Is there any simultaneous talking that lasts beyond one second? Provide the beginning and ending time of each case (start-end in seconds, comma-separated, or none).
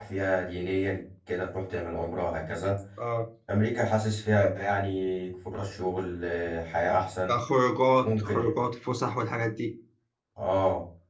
none